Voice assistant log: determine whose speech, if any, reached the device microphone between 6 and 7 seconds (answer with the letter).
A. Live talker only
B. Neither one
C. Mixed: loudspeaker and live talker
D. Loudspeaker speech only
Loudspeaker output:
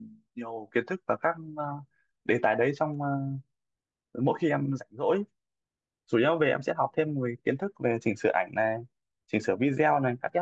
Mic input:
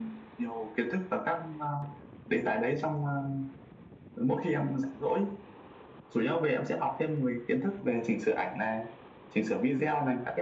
D